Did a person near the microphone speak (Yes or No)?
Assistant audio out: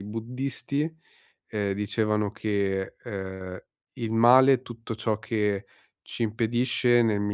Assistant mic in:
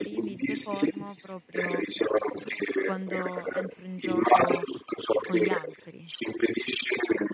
Yes